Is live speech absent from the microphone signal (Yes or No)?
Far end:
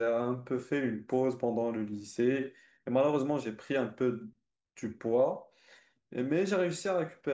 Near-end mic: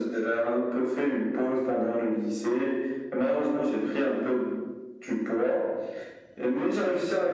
Yes